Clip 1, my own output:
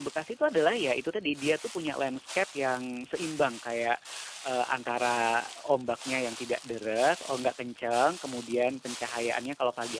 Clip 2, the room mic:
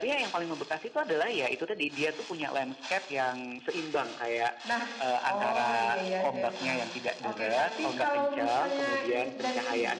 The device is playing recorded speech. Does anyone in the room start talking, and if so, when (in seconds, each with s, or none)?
4.7 s